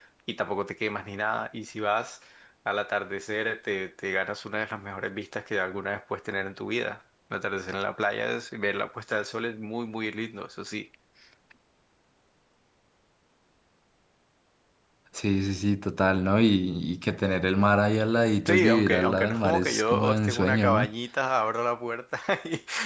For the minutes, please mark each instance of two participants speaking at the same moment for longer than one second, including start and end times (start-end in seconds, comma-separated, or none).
18.5-20.9